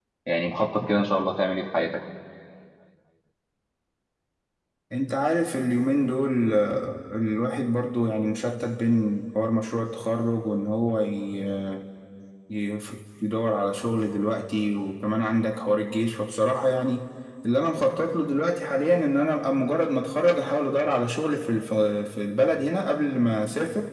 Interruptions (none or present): none